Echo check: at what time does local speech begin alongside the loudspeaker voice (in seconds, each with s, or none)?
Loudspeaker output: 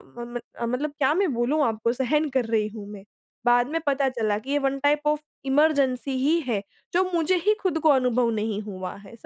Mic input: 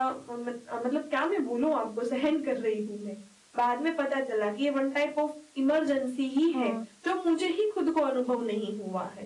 6.4 s